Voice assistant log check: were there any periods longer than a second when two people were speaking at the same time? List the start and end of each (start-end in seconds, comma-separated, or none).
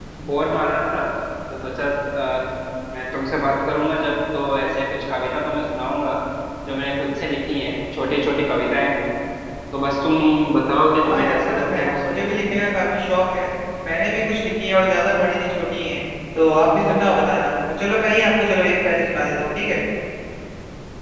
11.0-12.4